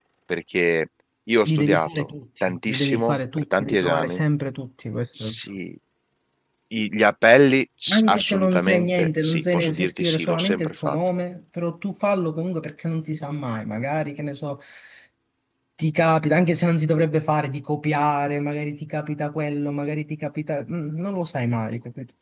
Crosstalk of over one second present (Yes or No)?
Yes